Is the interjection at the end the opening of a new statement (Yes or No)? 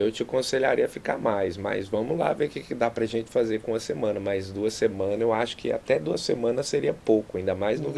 Yes